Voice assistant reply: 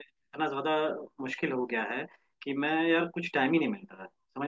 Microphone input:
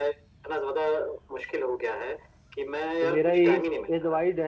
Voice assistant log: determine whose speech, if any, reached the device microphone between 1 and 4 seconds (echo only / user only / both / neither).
both